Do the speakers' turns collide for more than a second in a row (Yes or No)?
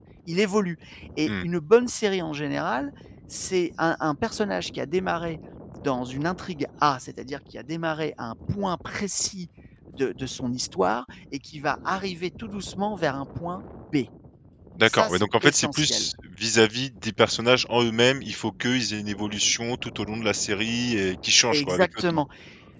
Yes